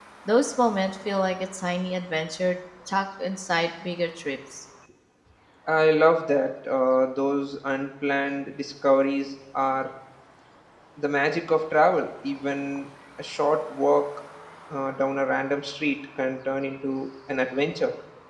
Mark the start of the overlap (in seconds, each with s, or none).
none